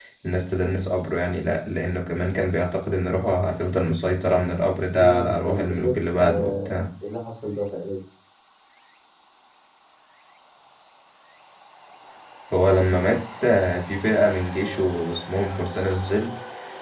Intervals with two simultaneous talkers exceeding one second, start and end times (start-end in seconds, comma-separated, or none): 4.9-6.8